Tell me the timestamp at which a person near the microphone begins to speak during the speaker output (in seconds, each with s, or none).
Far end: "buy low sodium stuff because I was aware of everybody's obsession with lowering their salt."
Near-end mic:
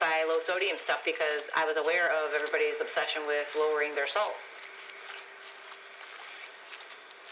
none